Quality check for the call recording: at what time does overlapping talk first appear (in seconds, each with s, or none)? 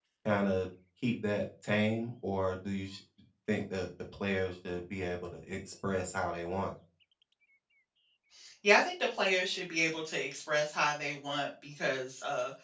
none